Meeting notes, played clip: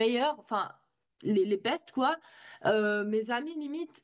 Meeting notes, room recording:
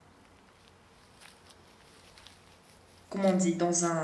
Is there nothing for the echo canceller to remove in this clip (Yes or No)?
Yes